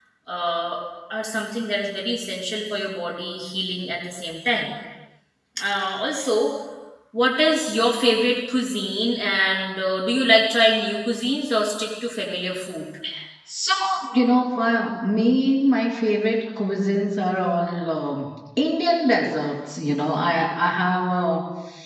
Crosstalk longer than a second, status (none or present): none